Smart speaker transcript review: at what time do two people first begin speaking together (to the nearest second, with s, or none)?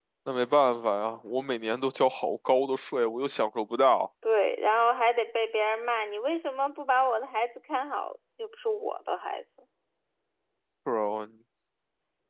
none